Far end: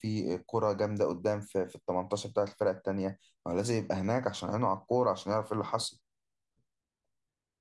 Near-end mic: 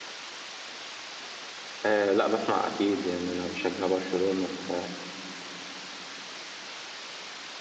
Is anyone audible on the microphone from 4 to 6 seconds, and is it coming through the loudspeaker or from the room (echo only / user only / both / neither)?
user only